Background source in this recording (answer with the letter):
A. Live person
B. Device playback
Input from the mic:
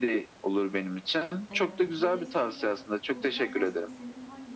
A